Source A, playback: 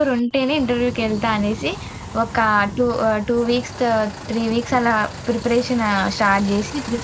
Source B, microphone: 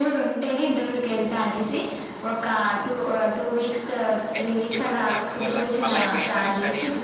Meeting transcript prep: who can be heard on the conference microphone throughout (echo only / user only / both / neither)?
both